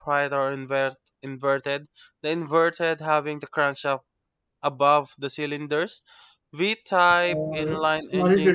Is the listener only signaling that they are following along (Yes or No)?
No